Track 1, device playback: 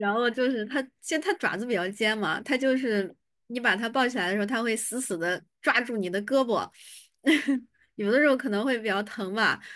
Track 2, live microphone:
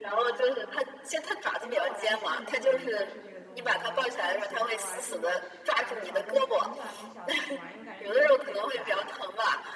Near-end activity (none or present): present